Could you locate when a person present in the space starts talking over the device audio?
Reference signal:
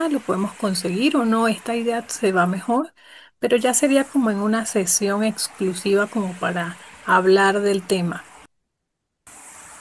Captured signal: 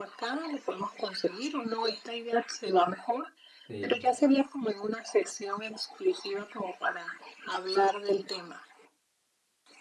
3.7 s

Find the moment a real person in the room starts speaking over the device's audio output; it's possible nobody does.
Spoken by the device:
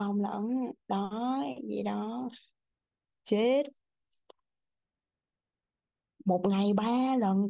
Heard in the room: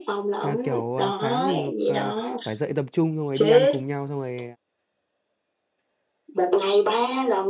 0.4 s

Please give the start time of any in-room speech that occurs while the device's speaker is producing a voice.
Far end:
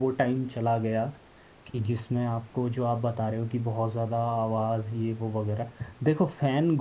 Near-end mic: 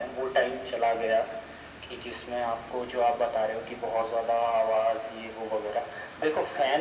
none

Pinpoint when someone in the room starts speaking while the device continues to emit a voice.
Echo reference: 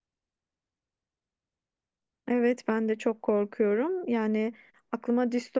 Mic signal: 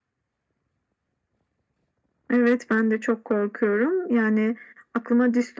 none

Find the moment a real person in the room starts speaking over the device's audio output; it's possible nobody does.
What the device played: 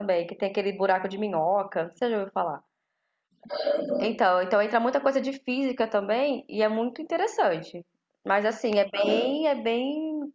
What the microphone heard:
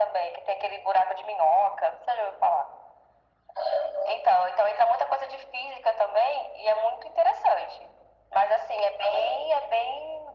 none

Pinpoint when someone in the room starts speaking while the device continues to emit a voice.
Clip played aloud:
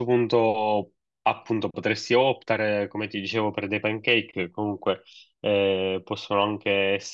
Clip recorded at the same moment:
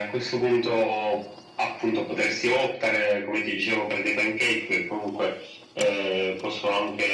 none

